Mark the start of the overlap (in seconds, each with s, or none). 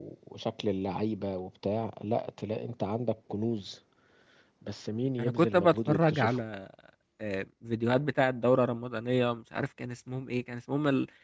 5.2 s